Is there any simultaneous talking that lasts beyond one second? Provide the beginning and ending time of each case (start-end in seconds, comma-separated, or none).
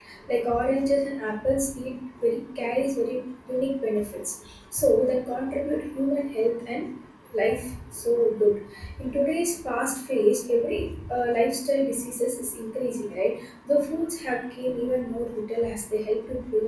none